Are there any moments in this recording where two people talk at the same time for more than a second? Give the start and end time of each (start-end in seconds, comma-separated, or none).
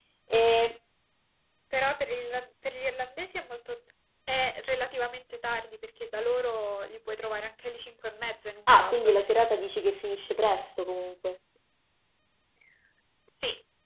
none